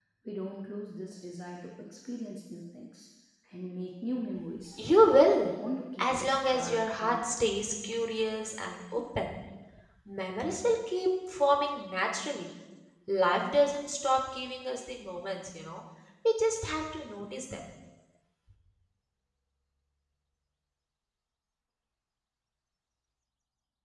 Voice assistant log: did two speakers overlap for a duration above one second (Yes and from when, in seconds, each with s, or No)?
Yes, from 6.0 s